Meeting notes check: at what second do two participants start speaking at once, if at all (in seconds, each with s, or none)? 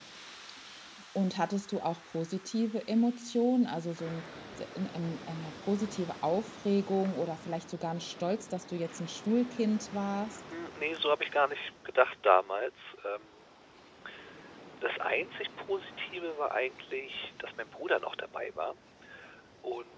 none